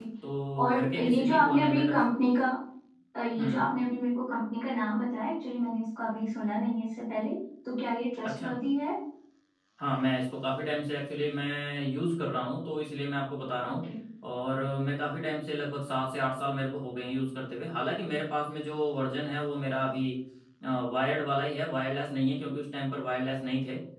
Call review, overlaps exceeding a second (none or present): present